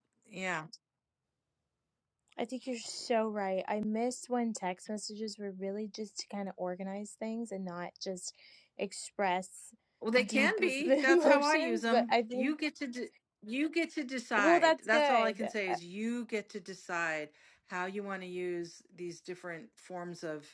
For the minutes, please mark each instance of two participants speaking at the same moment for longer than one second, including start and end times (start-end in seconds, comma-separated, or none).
10.2-12.5, 14.3-15.8